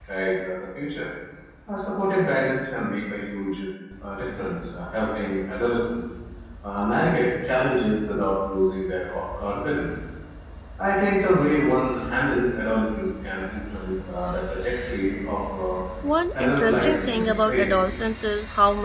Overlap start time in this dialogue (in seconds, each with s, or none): 16.3 s